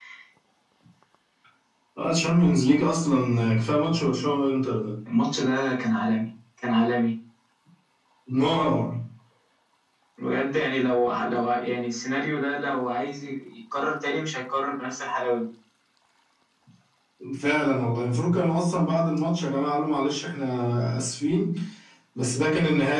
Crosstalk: none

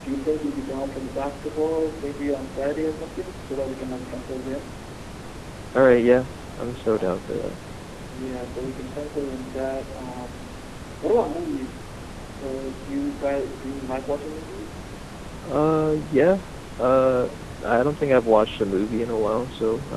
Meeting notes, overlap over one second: none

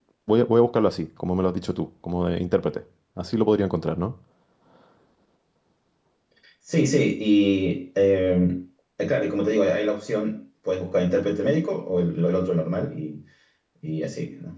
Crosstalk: none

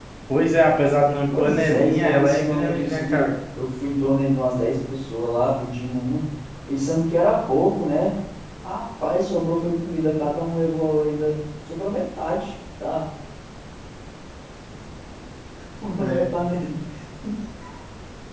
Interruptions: present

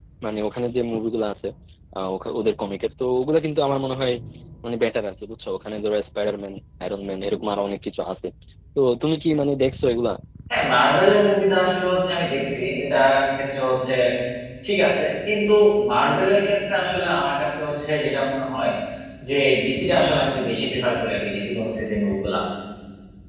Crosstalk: none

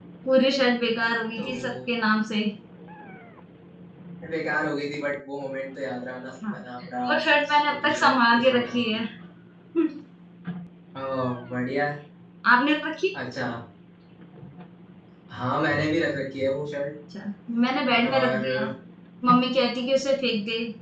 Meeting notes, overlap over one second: present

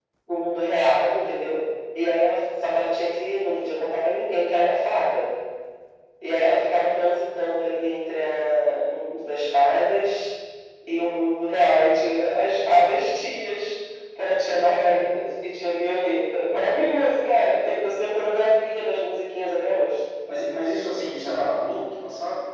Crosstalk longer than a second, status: none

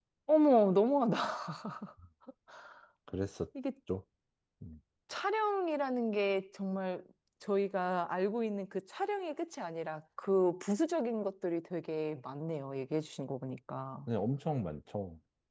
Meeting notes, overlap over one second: none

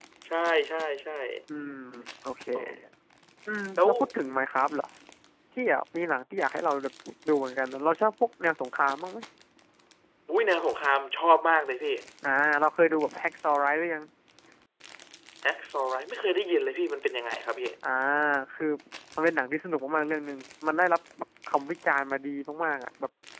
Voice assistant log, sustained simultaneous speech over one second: none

